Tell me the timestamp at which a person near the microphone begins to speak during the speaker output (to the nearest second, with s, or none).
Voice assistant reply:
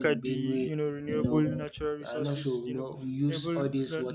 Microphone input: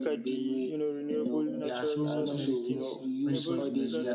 2 s